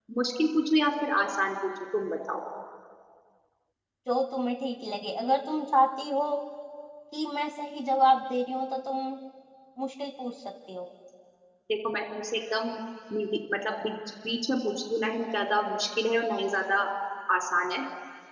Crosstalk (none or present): none